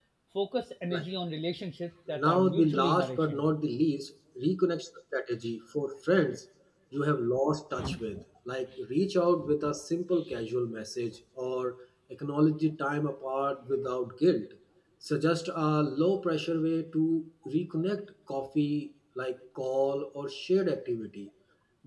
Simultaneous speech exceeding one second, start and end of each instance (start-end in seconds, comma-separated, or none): 2.2-3.5